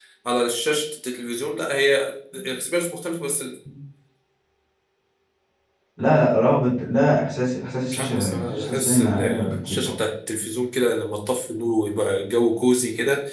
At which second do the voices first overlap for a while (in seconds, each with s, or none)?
7.9 s